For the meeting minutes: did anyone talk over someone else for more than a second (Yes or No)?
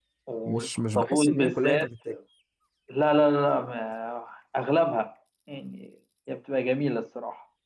Yes